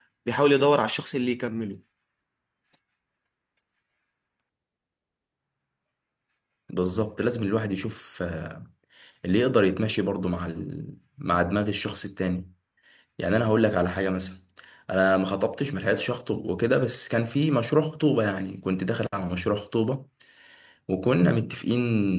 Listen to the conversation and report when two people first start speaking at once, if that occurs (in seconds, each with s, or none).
none